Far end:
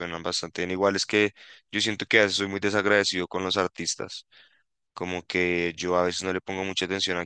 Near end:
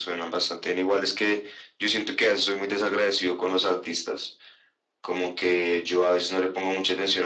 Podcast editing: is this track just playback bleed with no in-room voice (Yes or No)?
Yes